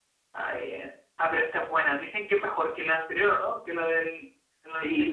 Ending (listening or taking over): taking over